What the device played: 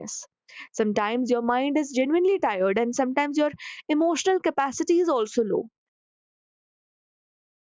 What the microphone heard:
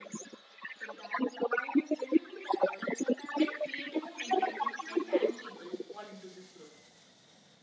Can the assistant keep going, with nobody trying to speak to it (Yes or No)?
No